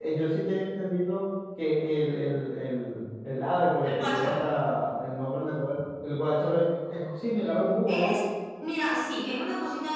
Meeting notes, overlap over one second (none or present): none